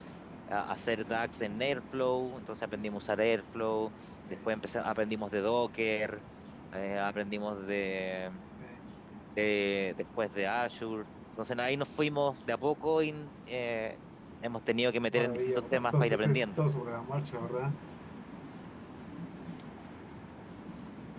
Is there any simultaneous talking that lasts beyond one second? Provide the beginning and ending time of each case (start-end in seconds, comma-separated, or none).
15.1-16.6